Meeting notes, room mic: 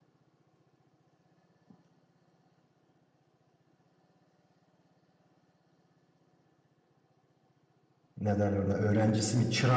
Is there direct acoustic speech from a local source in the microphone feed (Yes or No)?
Yes